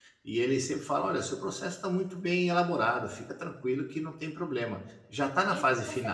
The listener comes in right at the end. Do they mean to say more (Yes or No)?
Yes